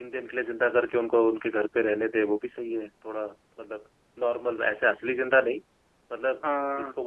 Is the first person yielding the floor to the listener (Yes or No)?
No